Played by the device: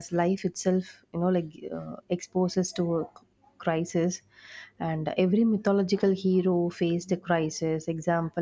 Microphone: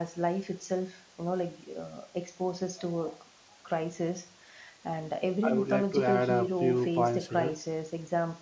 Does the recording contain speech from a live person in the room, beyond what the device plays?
Yes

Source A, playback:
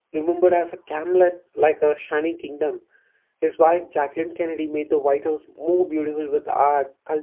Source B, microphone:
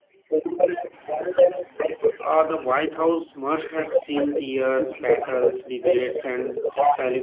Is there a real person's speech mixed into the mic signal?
Yes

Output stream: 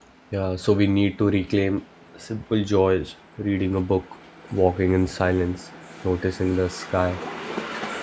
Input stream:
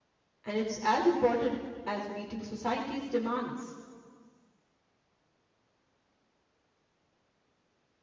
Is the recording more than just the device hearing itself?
Yes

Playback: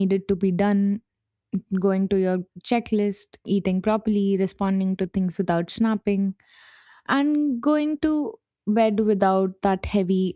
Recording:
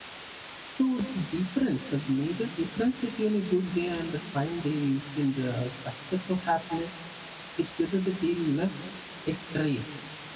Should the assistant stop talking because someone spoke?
Yes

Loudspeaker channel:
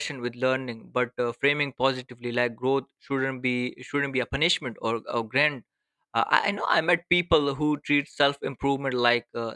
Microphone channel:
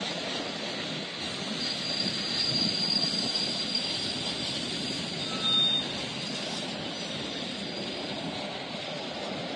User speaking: No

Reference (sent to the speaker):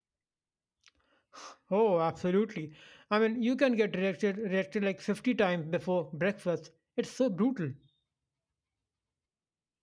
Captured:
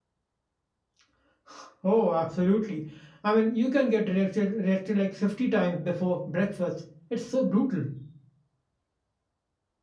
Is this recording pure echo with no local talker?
Yes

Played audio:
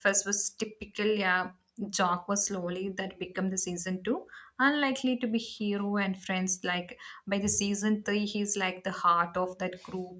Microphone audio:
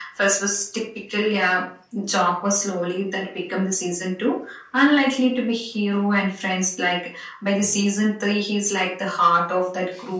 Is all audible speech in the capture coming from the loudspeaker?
Yes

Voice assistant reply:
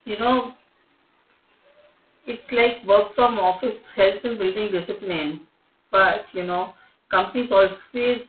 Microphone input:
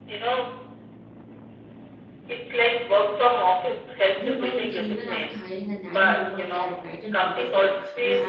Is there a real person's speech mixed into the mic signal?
Yes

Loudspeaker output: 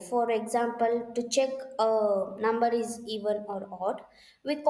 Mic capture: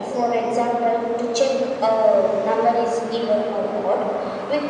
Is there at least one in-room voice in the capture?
No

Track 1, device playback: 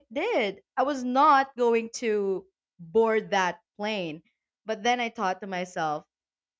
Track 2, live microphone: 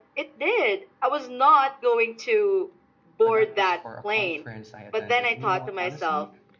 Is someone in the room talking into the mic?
Yes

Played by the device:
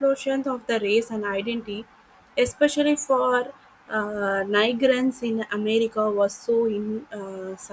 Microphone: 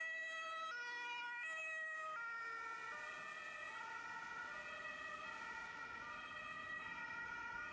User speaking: No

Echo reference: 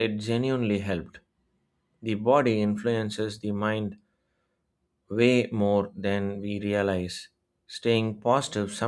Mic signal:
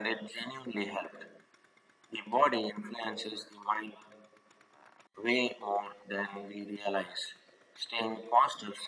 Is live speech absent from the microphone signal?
Yes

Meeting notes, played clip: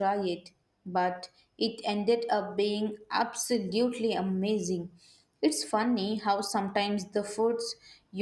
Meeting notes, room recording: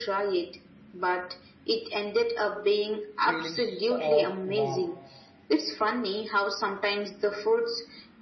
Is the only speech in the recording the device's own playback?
No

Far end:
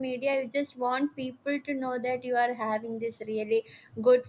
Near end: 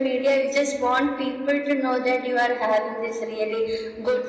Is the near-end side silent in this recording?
Yes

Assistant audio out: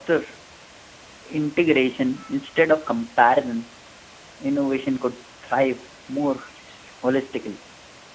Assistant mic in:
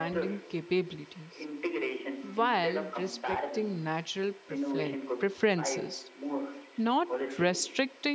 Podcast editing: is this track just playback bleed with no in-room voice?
No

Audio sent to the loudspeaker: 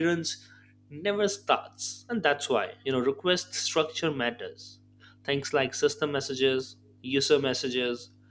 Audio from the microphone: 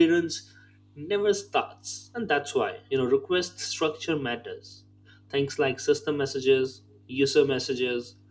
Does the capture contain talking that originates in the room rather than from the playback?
No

